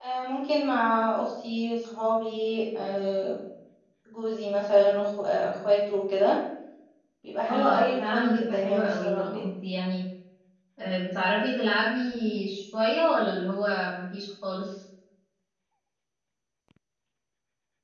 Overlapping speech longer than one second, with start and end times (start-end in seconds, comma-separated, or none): 7.5-9.4